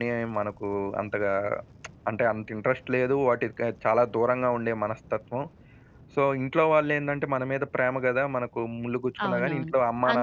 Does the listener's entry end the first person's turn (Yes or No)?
Yes